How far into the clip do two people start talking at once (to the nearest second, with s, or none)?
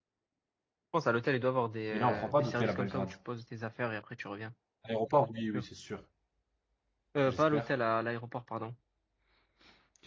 2 s